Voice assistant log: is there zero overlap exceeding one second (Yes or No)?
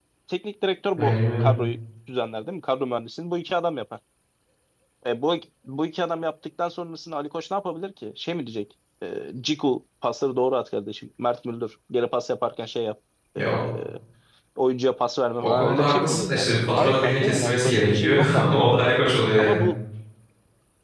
No